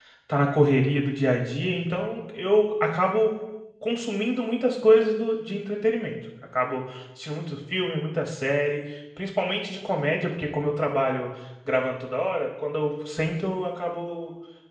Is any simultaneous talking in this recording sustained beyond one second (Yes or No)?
No